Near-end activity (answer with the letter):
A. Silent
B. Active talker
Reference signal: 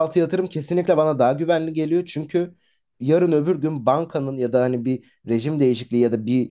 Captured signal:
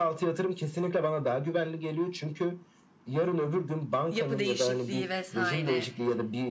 B